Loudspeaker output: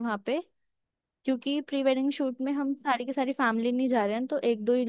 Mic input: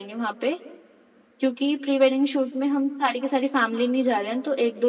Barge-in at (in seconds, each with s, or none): none